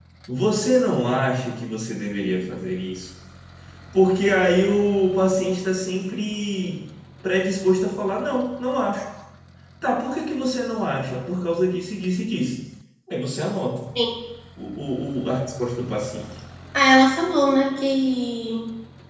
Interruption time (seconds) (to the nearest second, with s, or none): none